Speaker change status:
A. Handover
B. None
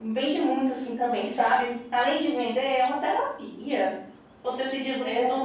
B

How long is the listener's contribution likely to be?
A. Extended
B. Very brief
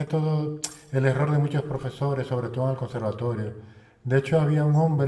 B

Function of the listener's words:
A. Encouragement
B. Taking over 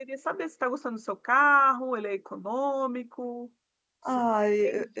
B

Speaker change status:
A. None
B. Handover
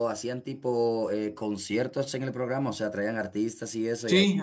B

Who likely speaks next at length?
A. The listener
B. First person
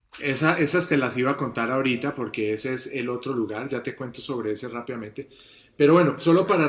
B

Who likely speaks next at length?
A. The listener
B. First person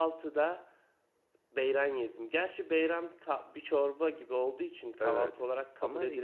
A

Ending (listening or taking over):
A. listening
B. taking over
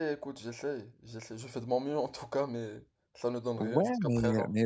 B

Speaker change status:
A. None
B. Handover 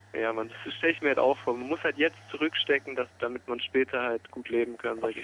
B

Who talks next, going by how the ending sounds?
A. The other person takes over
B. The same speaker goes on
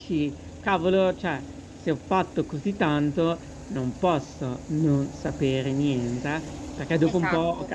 B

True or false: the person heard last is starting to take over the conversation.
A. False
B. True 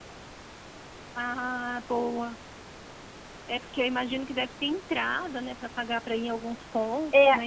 B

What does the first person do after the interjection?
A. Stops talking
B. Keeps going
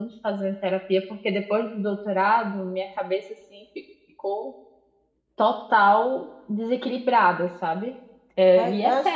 A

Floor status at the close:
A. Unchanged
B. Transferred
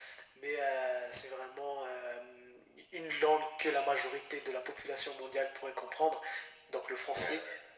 A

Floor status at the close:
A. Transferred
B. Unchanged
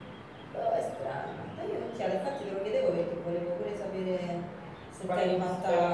A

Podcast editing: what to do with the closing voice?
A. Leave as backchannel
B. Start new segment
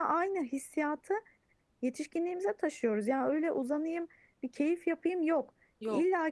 A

